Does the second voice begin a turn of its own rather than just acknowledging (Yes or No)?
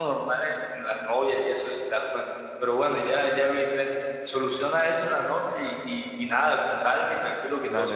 Yes